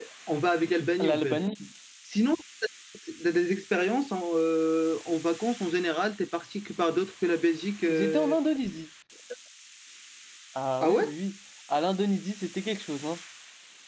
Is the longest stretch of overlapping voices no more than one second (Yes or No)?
Yes